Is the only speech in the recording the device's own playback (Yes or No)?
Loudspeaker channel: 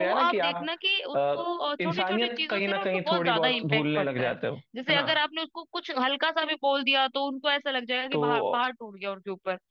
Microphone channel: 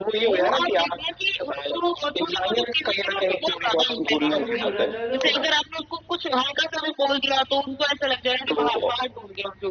No